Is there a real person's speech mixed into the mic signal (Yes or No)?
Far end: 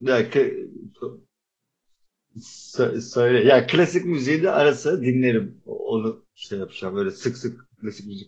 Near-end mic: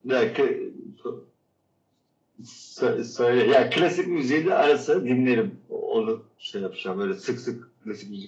No